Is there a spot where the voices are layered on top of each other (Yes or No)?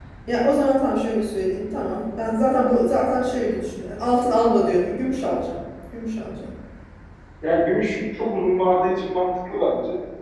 No